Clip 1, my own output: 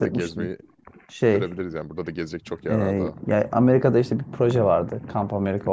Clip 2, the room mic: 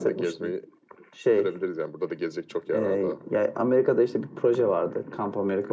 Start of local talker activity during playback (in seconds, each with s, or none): none